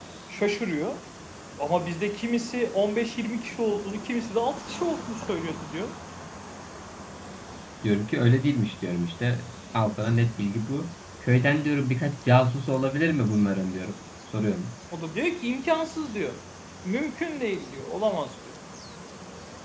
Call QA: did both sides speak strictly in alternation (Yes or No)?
Yes